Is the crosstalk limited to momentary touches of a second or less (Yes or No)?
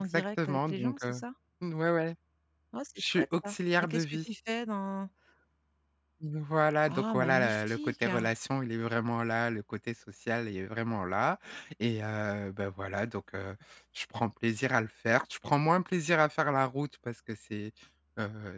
No